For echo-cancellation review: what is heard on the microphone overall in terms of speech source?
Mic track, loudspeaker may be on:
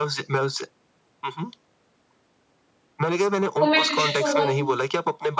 both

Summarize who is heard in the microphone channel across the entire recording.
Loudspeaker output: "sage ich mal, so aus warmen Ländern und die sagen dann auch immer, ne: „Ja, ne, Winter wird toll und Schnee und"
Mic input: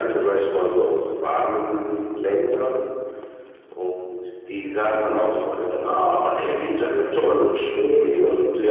both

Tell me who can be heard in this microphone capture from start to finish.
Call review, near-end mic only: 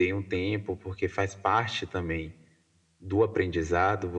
echo only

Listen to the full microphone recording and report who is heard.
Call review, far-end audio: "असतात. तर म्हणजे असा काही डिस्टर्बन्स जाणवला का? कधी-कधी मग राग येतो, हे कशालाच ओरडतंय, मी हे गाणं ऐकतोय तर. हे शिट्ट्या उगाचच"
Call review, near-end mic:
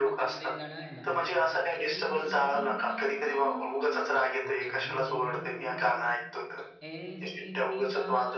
both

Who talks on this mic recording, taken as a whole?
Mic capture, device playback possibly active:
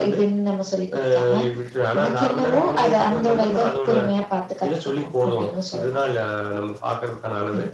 echo only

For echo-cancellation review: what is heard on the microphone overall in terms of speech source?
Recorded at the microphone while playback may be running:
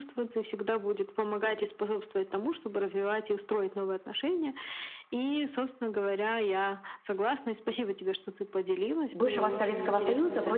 both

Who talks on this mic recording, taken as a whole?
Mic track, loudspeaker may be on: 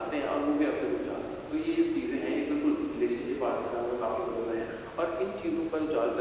echo only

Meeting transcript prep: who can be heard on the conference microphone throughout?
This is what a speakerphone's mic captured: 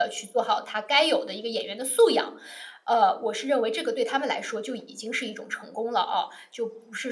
user only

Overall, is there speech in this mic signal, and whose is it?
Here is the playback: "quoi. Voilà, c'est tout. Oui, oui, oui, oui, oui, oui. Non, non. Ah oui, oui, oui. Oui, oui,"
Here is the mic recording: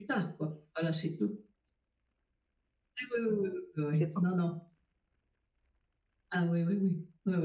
both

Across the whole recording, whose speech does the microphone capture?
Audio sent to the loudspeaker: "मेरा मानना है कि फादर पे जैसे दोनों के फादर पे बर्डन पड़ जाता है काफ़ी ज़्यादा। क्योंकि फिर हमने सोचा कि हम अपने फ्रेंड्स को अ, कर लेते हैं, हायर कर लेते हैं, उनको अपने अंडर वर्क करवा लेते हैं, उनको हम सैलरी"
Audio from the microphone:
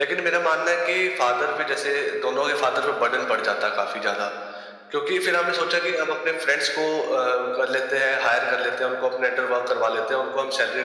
echo only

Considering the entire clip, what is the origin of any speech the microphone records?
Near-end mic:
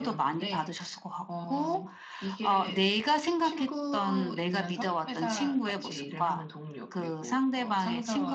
echo only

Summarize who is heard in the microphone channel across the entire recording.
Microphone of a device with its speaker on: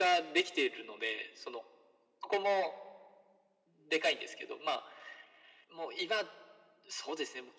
echo only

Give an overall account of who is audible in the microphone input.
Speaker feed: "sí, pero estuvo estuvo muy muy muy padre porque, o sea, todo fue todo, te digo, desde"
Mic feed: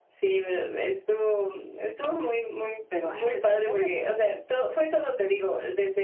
both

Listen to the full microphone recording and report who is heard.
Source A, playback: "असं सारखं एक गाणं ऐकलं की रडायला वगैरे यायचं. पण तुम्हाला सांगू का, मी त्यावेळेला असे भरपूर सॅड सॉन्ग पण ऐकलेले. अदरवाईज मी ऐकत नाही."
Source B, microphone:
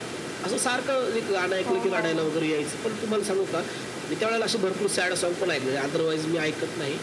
both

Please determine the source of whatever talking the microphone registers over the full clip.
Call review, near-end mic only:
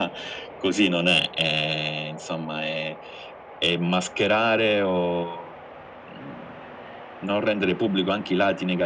echo only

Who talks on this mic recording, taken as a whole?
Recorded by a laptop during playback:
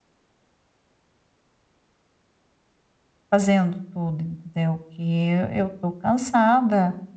user only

